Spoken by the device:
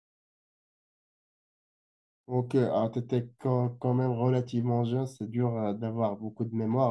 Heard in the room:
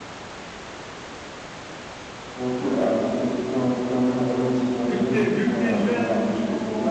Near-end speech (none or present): present